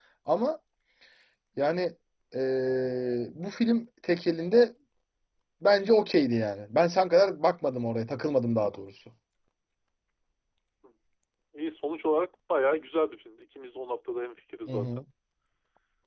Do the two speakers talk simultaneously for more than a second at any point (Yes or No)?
No